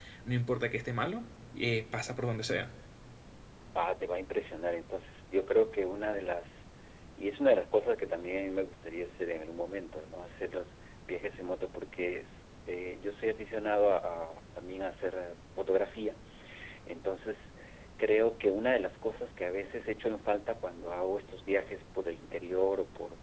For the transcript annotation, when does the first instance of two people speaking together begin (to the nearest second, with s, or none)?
none